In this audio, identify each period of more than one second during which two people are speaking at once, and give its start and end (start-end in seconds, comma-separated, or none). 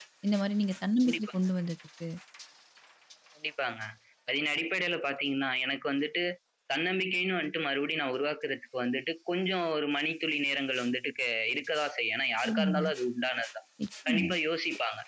none